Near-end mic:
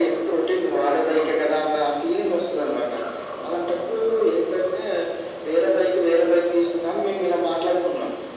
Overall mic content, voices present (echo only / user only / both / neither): echo only